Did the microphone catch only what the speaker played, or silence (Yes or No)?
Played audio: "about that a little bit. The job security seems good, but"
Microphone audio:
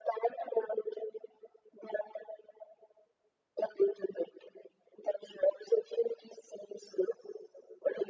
Yes